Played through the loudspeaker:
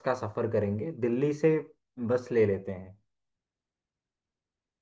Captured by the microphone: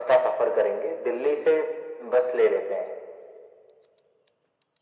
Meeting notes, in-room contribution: none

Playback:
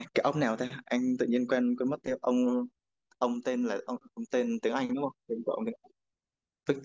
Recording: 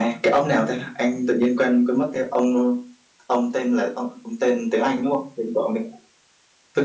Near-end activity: none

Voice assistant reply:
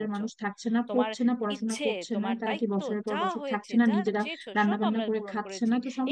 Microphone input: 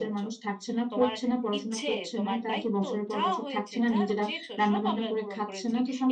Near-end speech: none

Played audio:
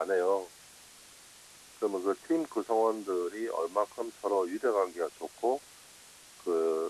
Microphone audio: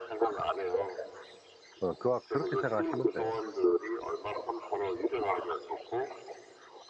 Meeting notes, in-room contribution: present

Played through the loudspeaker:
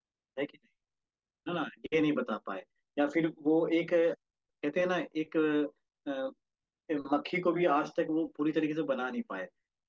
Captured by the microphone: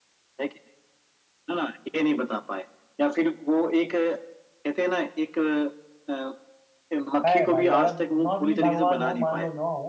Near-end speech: present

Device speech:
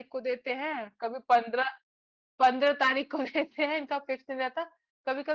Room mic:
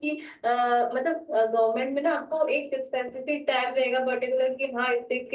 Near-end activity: present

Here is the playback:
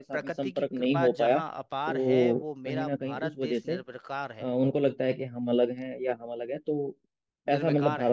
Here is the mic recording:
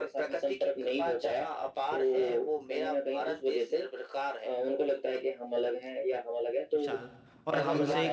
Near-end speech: present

